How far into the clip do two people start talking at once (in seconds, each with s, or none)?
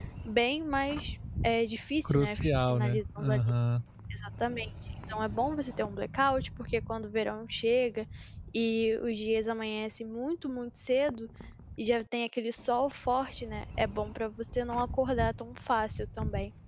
2.0 s